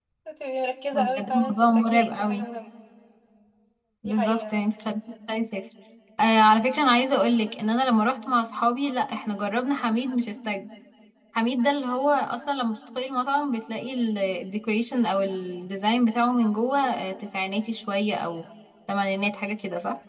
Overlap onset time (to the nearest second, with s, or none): 1 s